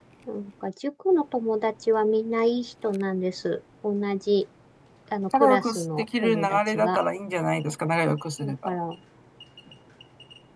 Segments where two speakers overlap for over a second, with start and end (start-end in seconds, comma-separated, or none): 5.3-7.0